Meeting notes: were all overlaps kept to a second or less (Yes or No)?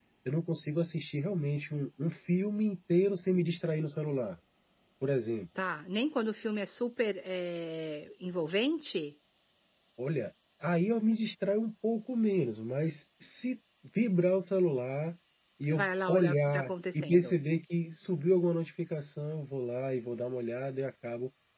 No